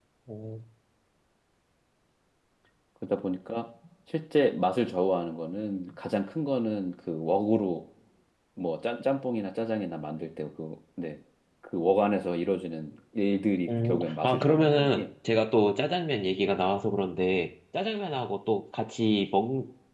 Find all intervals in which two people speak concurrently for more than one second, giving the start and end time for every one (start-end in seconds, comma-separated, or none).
13.8-15.1